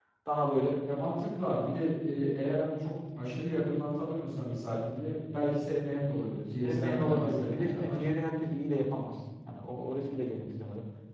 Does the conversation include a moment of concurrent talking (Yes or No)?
Yes